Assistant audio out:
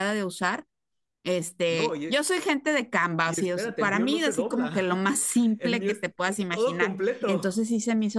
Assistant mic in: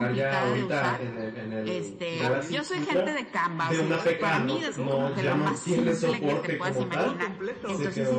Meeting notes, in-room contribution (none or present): present